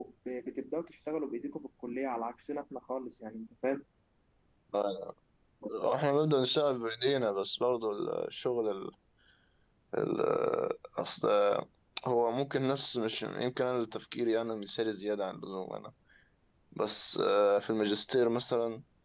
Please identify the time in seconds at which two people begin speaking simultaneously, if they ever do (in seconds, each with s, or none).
none